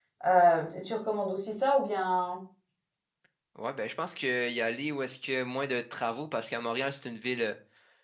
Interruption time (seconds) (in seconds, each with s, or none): none